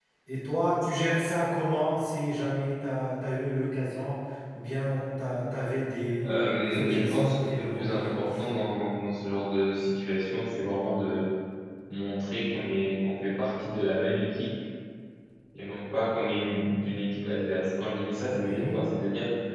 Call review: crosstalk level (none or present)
present